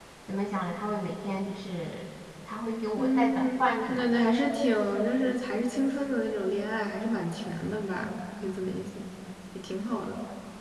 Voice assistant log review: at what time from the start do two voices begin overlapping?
3 s

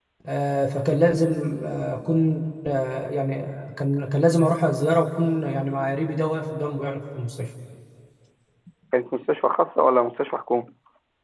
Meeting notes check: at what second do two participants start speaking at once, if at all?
none

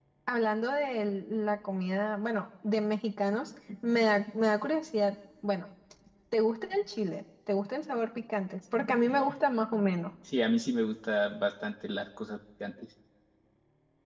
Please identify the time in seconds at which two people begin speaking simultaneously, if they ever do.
none

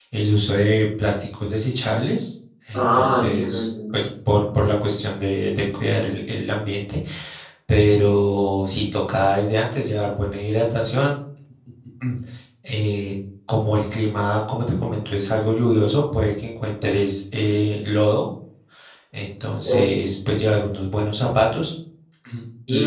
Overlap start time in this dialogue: 3 s

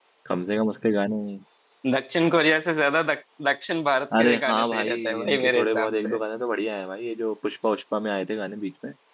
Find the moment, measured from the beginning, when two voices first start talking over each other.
4 s

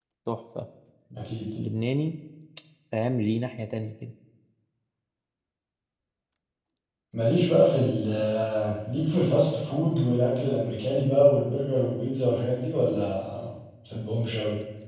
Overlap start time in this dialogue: none

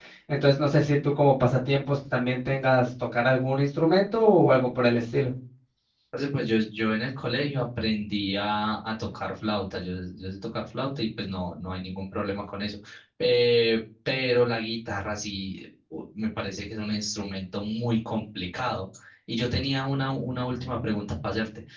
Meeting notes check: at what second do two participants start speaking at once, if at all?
none

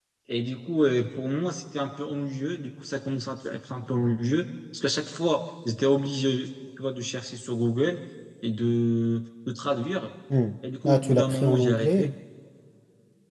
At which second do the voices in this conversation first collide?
11 s

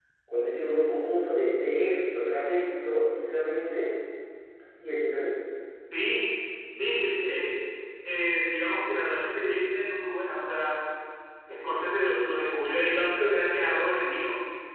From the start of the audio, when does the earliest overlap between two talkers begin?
none

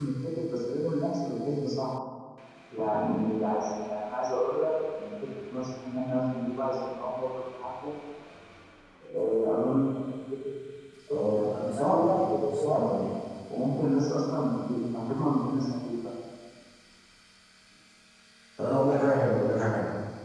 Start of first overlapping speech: 11 s

